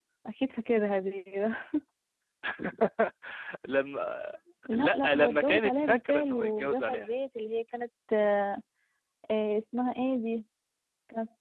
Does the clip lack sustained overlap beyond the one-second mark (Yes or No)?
No